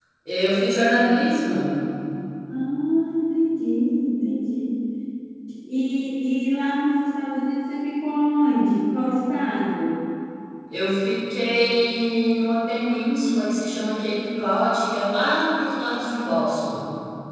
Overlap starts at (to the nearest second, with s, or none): none